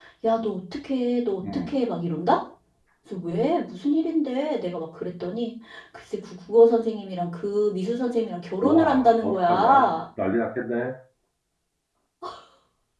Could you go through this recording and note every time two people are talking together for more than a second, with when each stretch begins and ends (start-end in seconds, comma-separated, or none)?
8.6-9.9